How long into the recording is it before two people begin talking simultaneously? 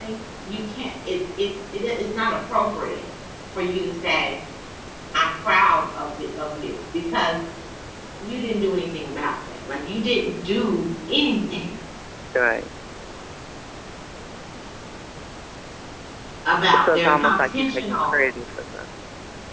16.8 s

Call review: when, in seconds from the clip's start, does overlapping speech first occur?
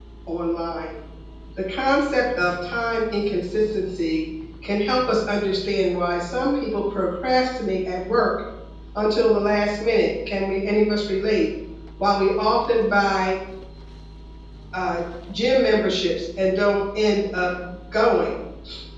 none

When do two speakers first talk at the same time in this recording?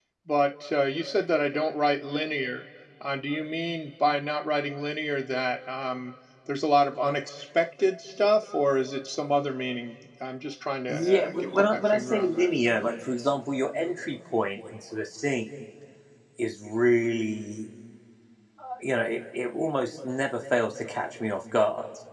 10.9 s

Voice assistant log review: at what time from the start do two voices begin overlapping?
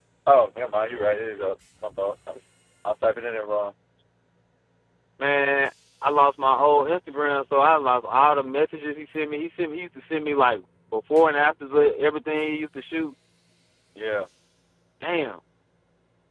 none

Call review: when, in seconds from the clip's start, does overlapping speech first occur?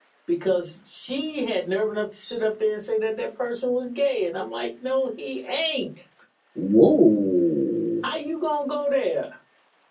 none

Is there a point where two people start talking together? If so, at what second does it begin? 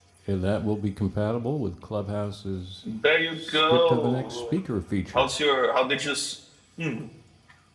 3.3 s

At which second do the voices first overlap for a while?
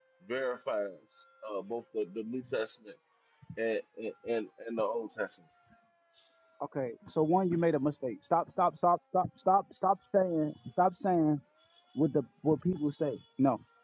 none

